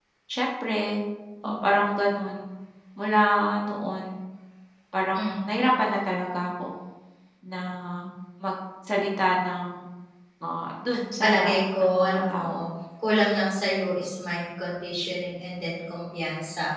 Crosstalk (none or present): present